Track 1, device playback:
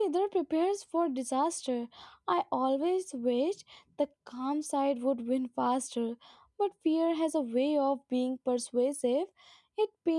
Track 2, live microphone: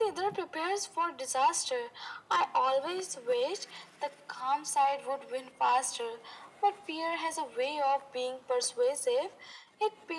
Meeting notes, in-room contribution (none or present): none